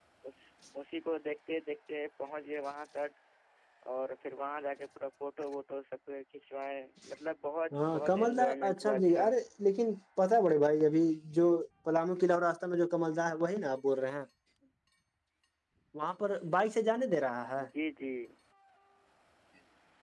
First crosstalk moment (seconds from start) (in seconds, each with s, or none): 7.7 s